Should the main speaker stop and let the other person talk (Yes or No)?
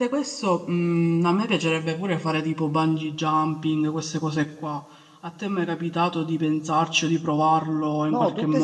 Yes